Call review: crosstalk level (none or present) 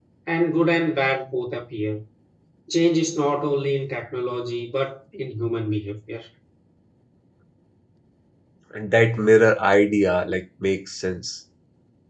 none